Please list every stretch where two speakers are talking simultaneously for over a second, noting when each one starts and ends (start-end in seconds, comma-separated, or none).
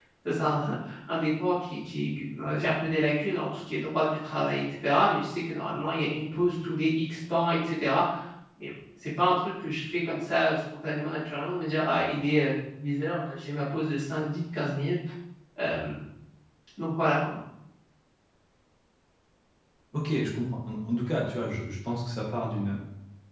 none